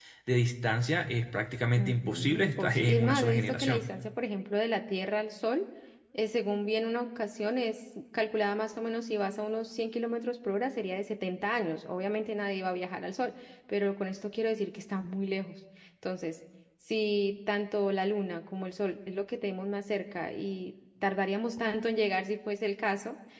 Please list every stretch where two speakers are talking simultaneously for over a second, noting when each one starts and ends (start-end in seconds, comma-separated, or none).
1.8-3.9